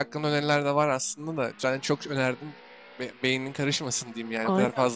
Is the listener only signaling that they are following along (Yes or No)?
No